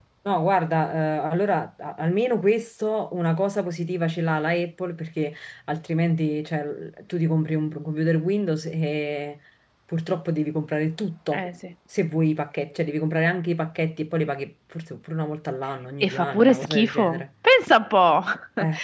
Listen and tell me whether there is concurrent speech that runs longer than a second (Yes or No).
Yes